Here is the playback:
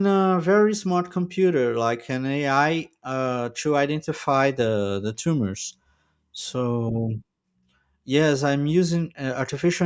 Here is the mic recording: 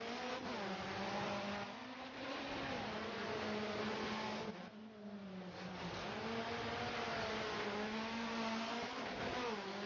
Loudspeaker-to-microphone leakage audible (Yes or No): No